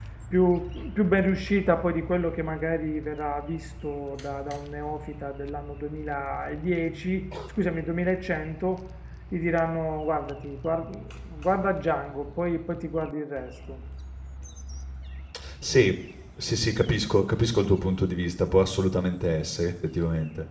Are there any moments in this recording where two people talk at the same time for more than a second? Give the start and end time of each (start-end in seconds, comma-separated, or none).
none